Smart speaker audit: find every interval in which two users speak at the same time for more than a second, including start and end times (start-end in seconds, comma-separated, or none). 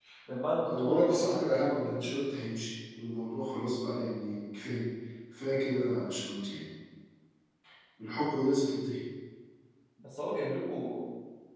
0.7-1.9